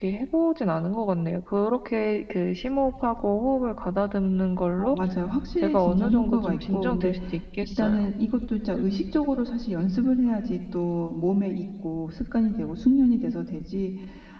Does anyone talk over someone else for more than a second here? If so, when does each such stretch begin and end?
5.6-7.1

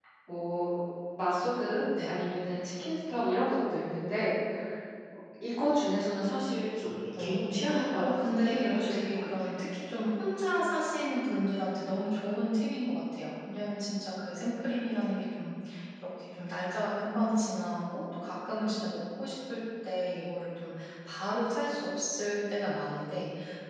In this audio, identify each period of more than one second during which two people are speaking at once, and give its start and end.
7.2-9.3

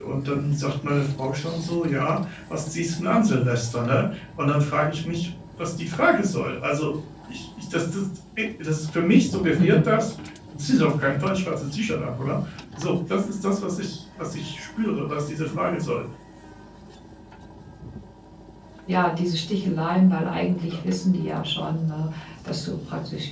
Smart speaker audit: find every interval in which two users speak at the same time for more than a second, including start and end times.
none

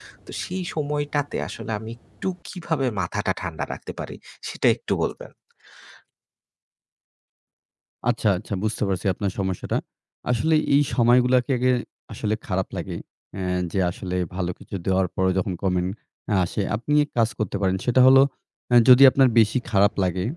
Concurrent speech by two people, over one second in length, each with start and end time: none

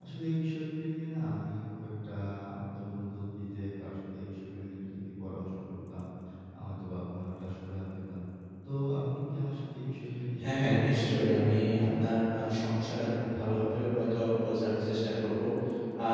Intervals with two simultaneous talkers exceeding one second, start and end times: 10.4-12.1

